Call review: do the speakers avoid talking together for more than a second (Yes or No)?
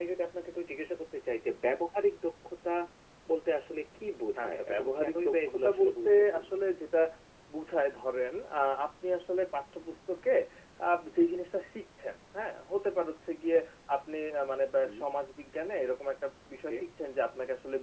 No